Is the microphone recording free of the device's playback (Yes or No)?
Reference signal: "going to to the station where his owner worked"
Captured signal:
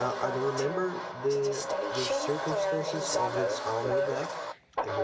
No